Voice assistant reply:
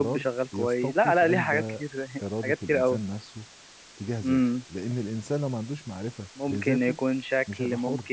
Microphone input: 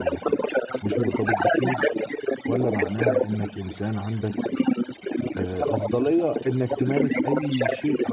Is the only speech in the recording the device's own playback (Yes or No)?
No